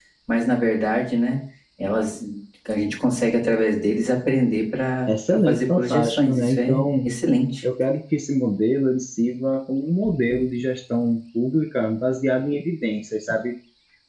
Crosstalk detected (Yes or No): Yes